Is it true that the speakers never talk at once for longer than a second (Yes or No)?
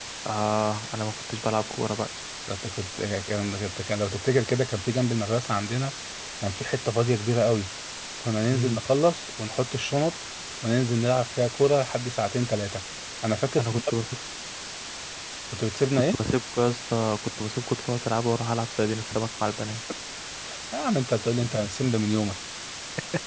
Yes